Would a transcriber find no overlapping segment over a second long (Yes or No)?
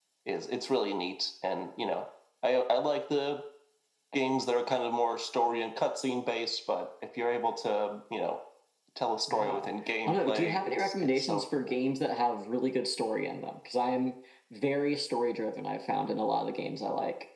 No